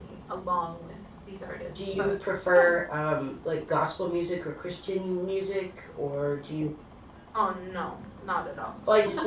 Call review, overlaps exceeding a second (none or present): none